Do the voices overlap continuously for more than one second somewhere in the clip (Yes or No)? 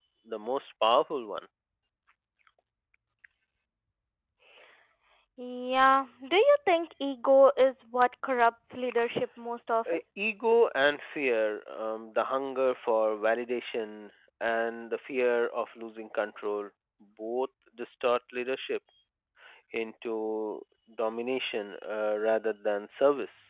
No